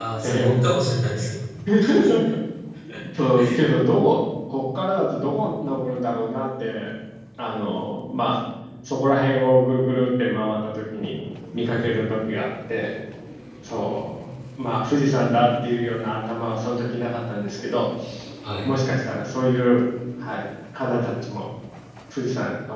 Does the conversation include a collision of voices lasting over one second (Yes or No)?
No